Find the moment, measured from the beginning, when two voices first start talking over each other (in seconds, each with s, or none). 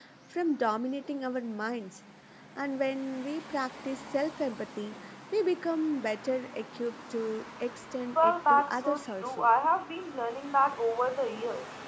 8.2 s